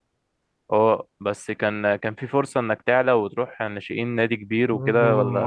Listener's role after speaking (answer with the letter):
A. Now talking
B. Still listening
A